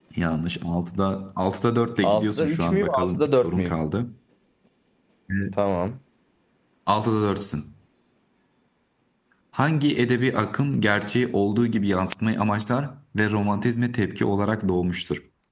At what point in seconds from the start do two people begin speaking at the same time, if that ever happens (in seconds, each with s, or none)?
2.0 s